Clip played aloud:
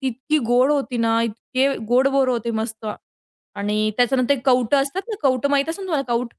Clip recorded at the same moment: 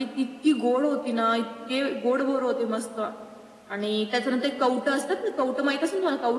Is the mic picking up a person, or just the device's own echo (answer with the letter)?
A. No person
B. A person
A